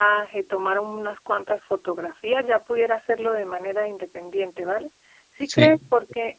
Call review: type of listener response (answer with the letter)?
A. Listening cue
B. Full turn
A